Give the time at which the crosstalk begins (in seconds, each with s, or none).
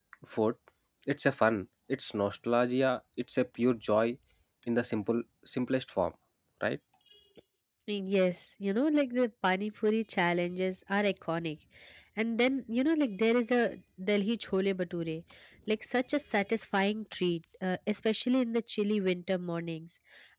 none